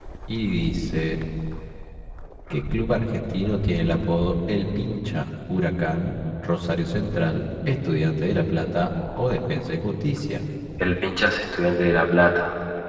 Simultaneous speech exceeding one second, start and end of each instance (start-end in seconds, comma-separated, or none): none